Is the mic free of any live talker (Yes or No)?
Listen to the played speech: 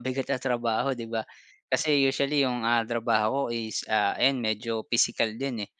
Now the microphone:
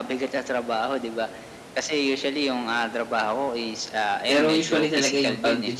No